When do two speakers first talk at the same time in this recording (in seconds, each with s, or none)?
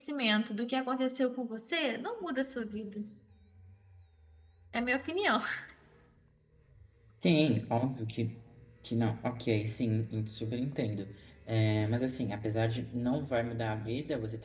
none